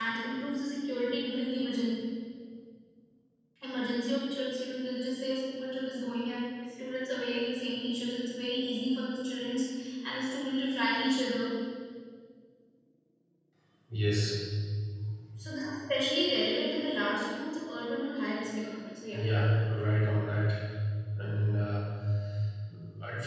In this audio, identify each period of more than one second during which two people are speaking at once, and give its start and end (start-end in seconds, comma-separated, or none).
none